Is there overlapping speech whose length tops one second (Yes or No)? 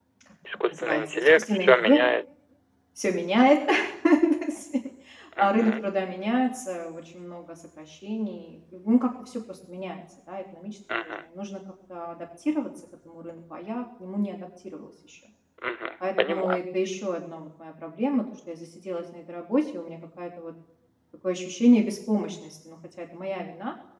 Yes